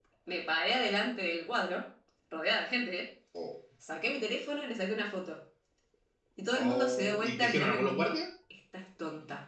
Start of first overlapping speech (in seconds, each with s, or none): 6.5 s